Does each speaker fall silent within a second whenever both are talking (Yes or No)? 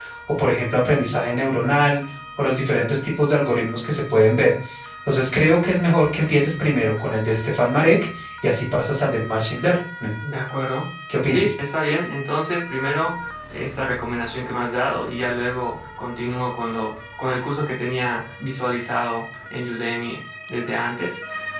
Yes